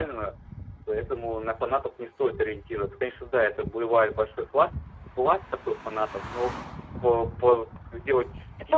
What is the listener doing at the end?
taking over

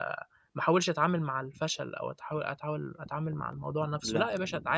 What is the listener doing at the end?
listening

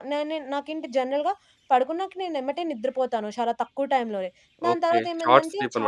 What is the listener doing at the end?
taking over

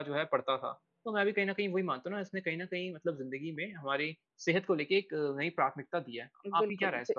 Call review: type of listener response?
taking over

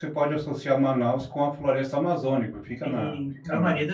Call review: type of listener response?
taking over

